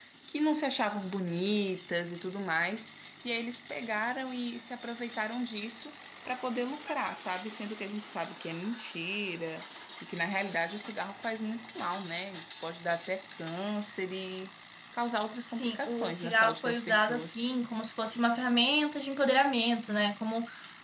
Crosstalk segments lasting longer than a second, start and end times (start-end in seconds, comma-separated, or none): 15.5-17.4